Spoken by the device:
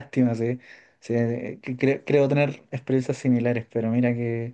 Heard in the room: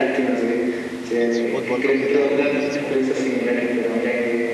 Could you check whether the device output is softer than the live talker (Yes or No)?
No